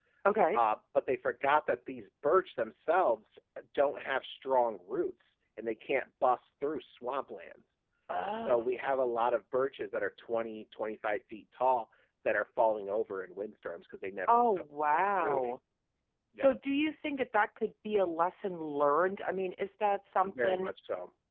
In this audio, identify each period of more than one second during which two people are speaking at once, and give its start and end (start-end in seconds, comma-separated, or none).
14.3-15.5